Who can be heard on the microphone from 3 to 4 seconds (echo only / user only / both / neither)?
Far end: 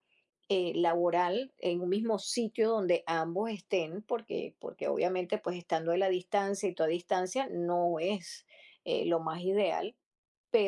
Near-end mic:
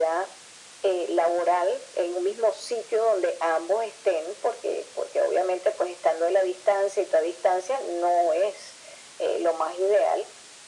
echo only